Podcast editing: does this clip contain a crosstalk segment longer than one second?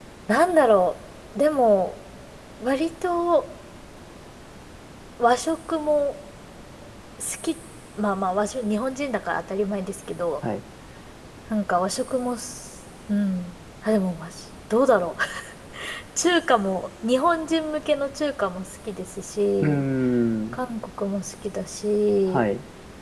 No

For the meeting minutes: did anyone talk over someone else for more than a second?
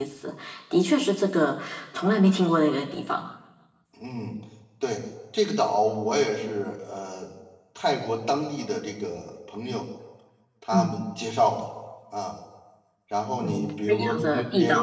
Yes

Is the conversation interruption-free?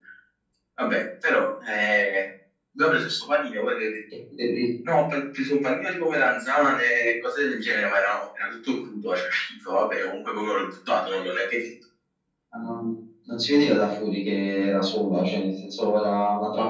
Yes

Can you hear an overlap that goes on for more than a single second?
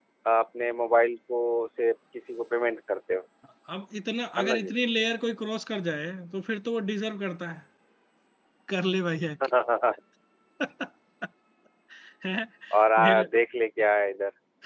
No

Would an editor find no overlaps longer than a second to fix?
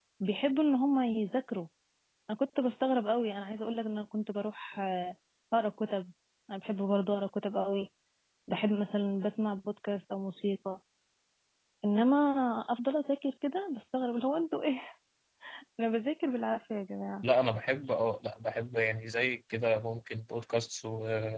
Yes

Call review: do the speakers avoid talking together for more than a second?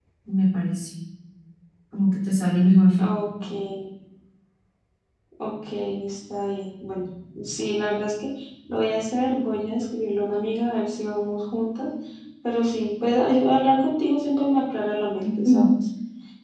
Yes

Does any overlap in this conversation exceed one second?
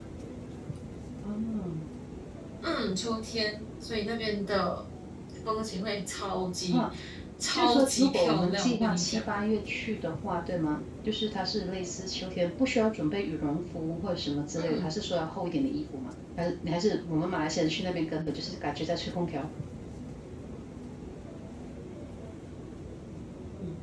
Yes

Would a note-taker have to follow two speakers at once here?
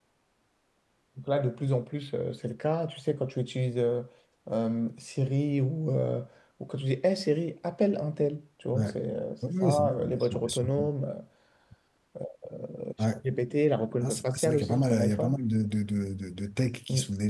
Yes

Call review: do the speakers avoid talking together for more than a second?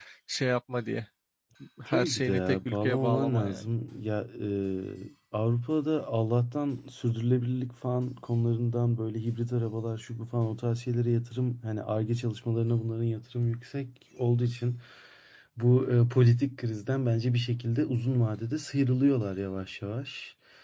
No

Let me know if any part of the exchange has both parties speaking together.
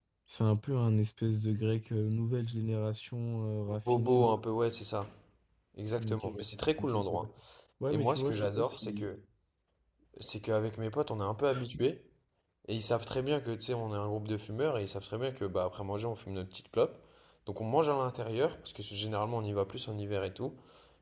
Yes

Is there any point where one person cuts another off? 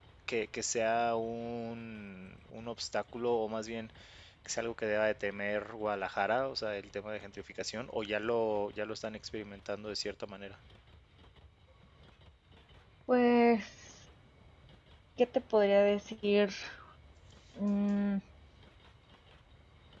No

